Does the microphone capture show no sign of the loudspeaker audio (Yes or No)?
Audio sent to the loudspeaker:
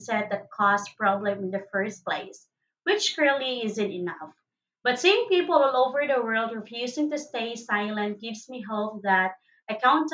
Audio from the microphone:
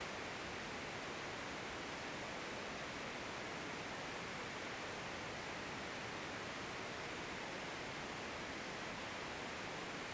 Yes